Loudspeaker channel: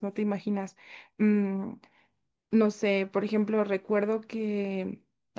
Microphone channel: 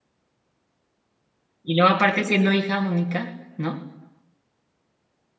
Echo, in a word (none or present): none